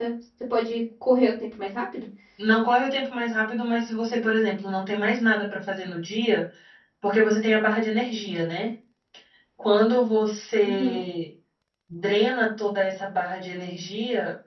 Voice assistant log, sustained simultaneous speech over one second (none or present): none